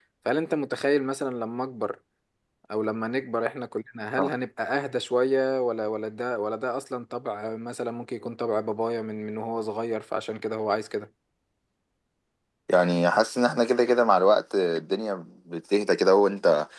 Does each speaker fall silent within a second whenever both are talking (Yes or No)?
Yes